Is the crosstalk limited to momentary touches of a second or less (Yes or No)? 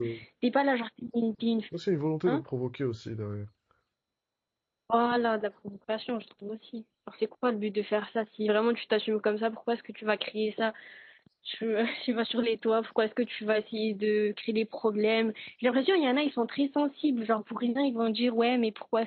Yes